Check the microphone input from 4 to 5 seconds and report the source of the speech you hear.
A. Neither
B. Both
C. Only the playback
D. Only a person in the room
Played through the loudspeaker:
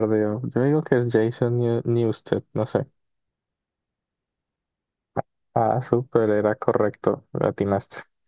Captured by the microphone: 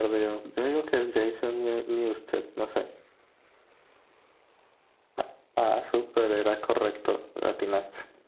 A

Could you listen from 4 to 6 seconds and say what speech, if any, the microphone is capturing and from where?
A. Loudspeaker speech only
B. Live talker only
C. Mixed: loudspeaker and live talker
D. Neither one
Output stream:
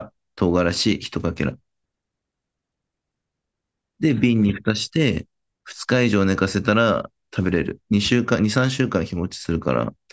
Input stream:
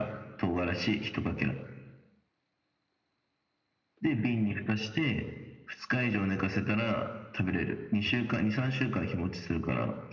A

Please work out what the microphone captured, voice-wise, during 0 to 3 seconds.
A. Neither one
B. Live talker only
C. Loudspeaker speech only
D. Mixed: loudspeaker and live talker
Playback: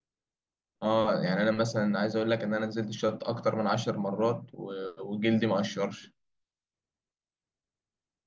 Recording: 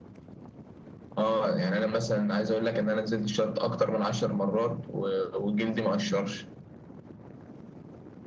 C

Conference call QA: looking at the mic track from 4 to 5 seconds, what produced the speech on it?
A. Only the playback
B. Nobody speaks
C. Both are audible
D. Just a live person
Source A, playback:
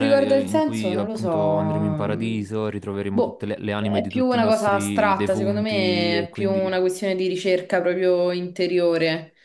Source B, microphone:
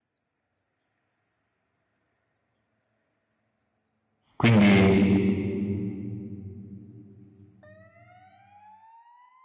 D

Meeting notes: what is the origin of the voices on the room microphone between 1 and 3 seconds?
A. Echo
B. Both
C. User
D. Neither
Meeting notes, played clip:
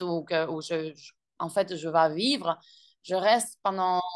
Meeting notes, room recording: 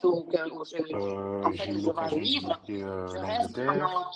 B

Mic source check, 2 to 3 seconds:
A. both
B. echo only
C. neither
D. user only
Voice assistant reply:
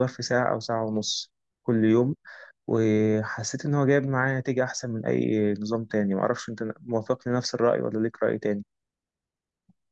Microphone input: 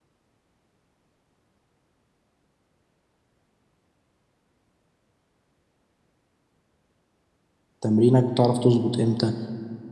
C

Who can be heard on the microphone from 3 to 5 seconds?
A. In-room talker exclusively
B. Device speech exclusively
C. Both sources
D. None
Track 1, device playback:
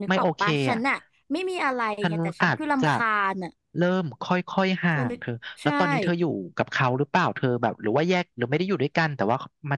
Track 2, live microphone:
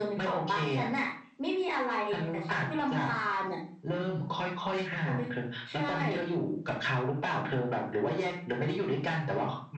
B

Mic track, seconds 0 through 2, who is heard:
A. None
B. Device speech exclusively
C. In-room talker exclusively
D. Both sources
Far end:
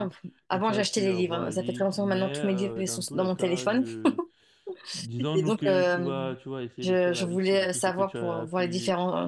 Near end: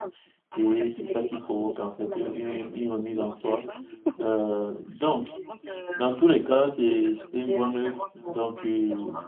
D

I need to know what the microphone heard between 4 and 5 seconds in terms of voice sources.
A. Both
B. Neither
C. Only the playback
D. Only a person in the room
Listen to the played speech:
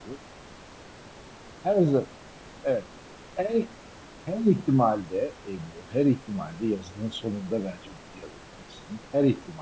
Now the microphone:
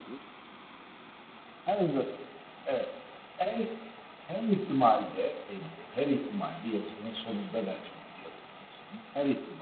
C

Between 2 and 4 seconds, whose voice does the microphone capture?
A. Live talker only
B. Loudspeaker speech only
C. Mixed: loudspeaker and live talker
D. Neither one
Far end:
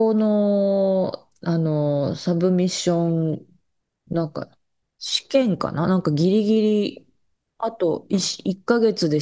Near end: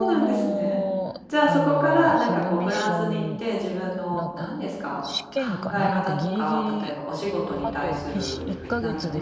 C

